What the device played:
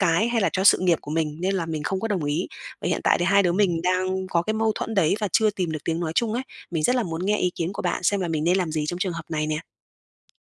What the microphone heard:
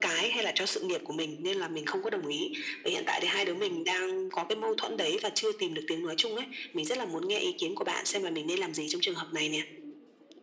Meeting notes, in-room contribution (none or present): none